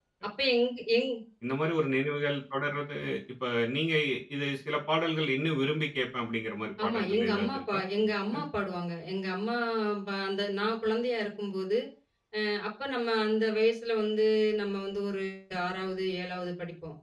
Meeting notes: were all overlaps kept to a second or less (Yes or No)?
No